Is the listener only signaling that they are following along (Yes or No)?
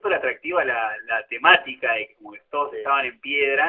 Yes